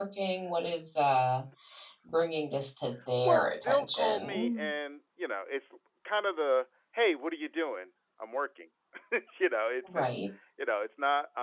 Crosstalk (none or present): present